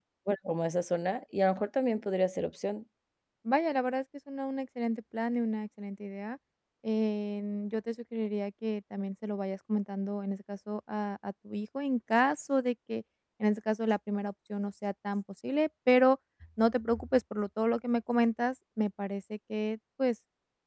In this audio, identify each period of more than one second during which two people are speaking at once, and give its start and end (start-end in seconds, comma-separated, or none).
none